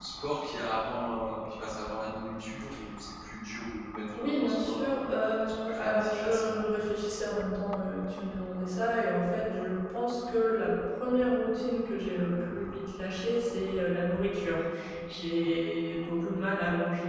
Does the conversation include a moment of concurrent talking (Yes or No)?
Yes